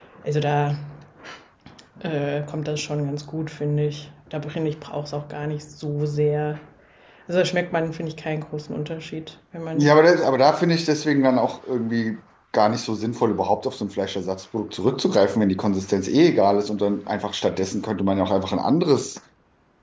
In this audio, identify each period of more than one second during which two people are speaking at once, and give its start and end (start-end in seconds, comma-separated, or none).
none